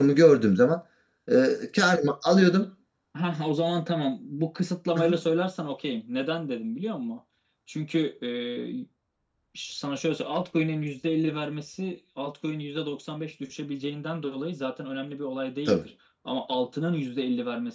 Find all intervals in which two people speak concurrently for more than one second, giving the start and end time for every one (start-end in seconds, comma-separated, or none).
none